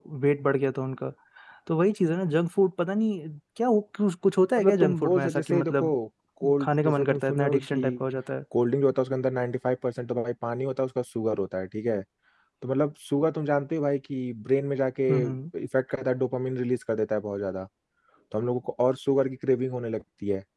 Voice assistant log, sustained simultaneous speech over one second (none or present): present